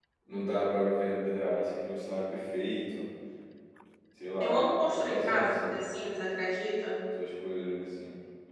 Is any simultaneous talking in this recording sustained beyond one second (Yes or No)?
Yes